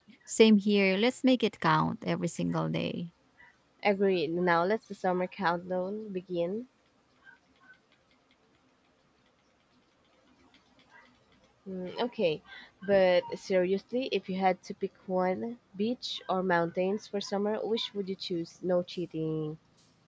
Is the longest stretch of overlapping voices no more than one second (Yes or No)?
Yes